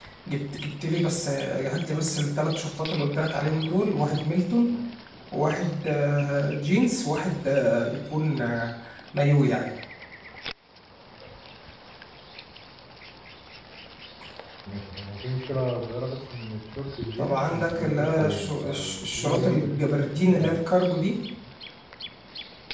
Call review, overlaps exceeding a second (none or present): present